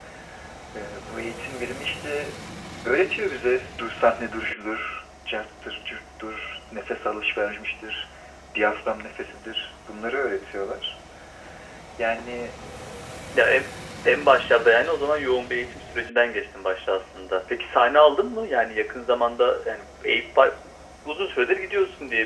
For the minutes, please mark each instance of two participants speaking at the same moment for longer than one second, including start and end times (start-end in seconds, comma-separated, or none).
none